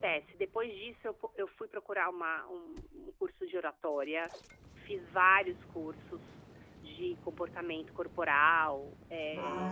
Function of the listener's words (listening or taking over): taking over